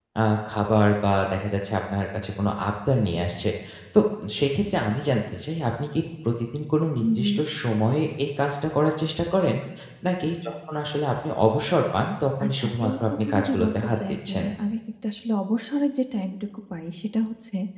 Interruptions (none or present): present